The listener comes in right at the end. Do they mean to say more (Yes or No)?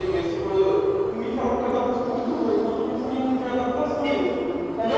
Yes